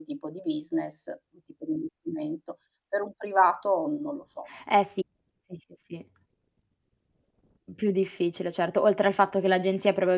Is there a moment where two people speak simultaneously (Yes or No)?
No